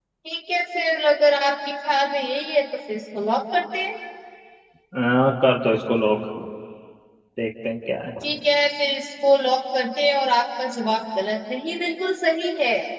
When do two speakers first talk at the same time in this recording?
none

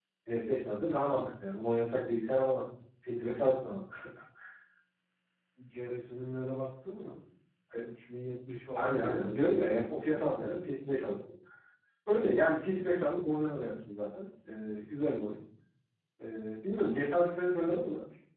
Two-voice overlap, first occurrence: 9 s

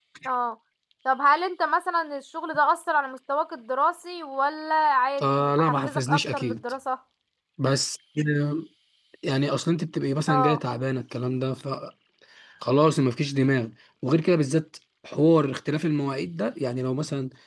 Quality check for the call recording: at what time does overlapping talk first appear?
5 s

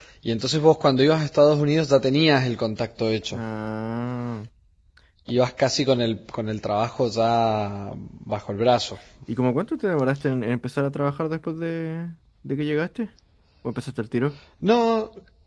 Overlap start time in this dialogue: none

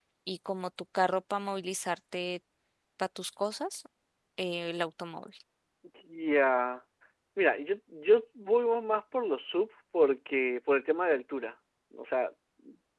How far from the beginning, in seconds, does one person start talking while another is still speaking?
none

